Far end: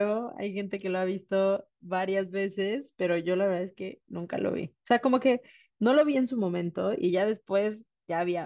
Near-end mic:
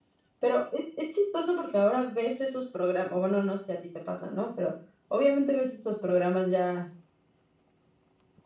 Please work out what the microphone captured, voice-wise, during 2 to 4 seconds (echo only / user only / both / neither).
user only